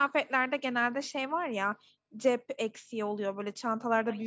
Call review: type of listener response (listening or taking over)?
listening